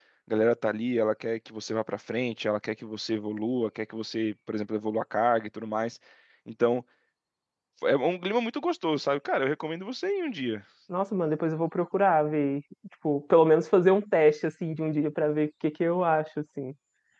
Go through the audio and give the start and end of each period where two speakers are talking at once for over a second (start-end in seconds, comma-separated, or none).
none